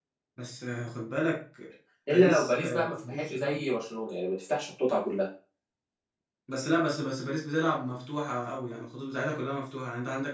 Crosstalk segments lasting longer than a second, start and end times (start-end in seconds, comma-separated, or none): 2.1-3.6